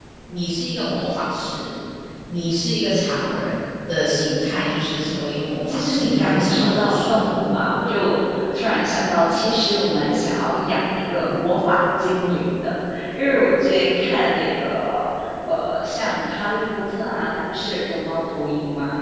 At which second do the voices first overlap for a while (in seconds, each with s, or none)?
5.7 s